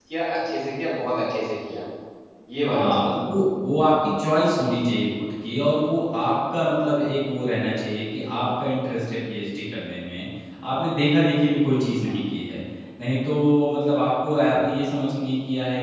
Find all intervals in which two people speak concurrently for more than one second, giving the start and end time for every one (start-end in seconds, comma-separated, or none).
none